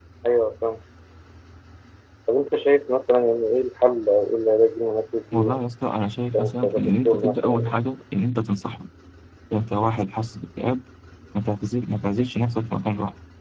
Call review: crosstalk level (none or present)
present